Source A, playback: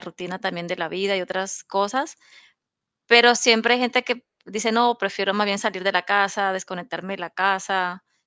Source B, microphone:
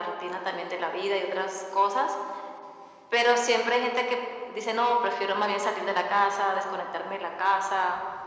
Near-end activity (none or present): none